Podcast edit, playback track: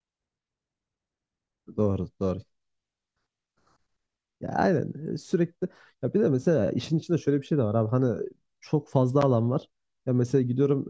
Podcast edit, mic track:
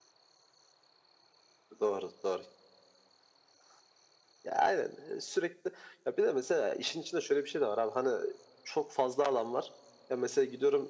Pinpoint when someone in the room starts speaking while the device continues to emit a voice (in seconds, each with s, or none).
none